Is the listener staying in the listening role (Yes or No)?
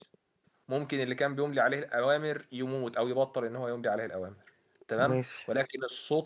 Yes